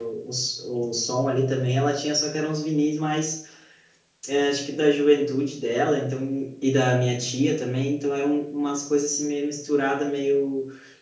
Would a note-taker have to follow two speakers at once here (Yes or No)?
No